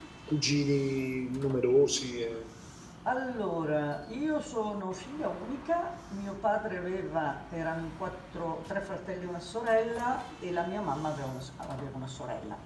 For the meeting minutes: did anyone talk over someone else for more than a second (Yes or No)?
No